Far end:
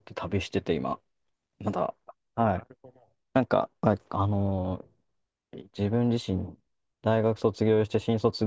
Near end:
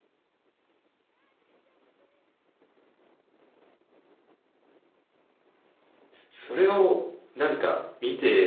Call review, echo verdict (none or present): none